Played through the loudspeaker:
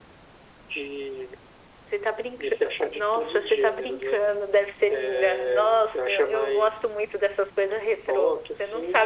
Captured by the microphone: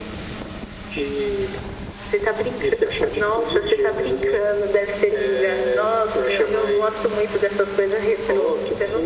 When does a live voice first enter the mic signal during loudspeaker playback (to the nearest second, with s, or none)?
none